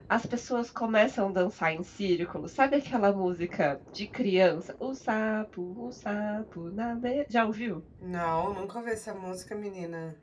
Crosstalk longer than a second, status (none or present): none